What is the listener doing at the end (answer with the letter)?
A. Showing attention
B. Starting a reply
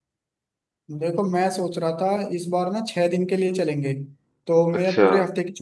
A